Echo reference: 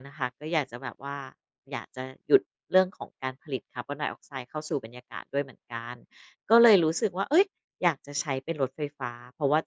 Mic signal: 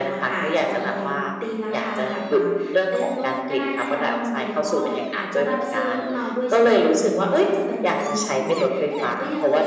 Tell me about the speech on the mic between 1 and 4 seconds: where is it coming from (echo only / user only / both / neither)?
both